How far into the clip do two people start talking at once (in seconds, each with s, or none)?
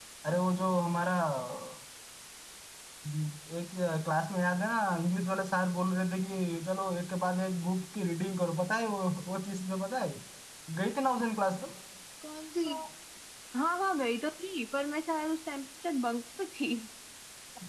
none